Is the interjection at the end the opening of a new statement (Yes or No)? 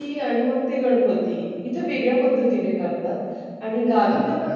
Yes